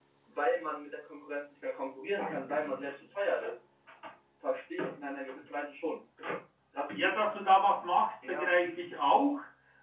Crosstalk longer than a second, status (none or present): none